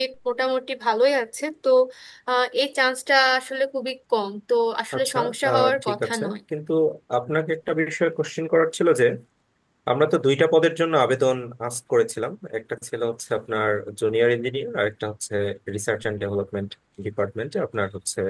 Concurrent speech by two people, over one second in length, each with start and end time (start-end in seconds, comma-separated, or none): 5.0-6.4